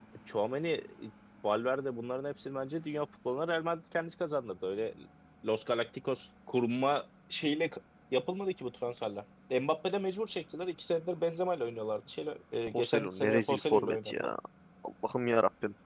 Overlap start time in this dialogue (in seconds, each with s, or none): 12.7 s